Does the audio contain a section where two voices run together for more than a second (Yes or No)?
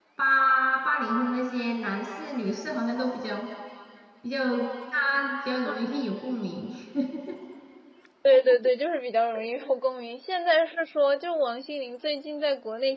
No